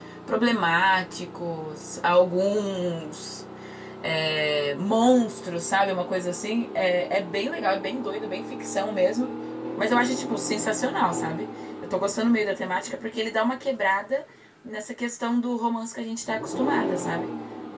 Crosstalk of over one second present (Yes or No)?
No